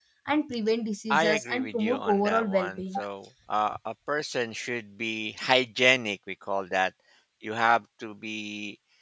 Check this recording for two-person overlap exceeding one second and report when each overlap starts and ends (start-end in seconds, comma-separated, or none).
1.1-2.8